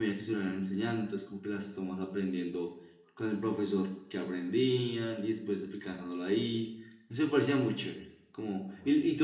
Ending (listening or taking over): listening